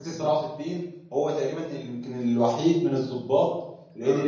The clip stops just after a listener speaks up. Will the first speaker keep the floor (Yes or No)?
Yes